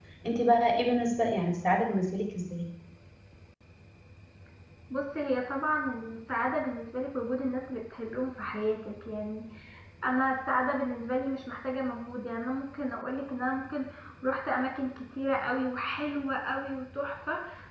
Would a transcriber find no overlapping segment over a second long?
Yes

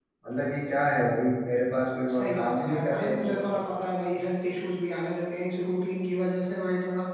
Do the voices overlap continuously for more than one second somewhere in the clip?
Yes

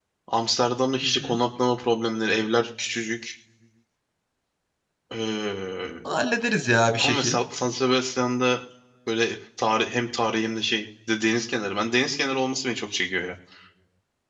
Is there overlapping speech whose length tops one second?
No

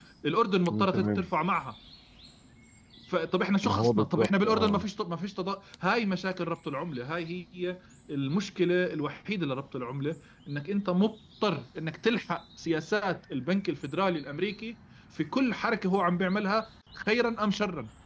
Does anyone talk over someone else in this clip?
Yes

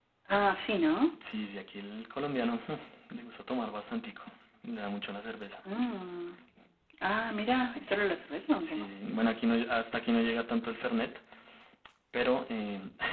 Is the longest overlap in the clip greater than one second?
No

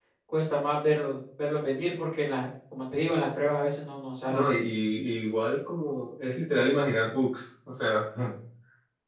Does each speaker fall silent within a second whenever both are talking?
Yes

